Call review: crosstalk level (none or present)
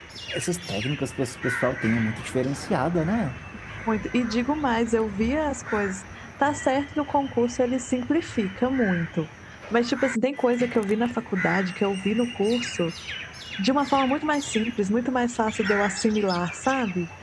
none